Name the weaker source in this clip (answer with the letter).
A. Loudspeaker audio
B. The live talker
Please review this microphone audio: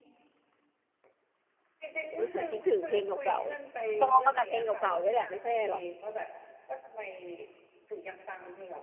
A